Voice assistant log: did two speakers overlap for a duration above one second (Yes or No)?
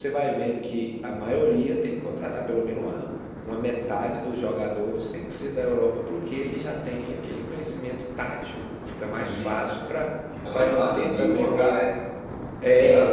Yes